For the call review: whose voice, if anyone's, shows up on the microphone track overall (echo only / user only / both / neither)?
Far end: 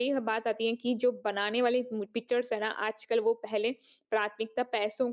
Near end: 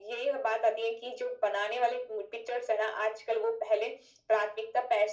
echo only